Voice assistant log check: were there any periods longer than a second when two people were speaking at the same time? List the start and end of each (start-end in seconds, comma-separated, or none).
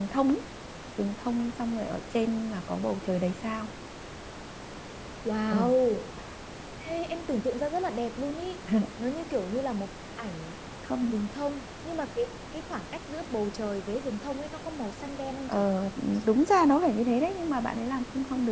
none